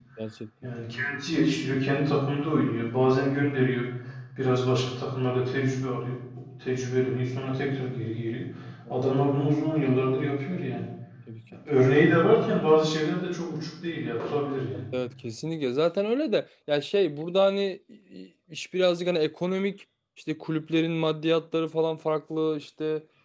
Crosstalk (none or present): none